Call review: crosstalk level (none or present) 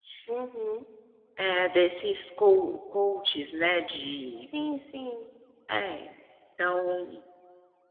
none